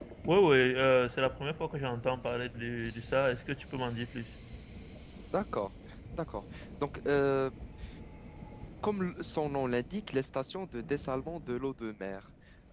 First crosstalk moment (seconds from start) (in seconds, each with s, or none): none